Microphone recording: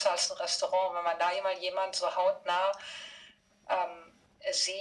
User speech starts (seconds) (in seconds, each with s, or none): none